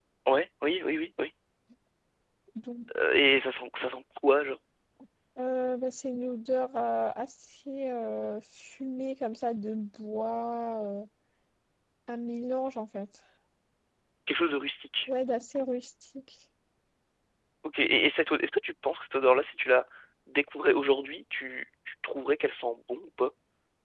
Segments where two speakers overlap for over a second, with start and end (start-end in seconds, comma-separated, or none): none